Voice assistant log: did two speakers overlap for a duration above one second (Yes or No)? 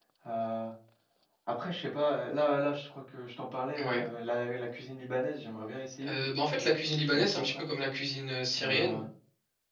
Yes